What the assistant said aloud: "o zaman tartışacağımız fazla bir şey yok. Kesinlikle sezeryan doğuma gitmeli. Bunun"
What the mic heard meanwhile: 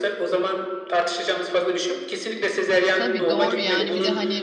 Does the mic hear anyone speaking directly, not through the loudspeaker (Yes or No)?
Yes